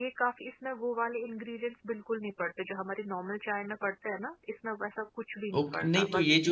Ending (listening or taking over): taking over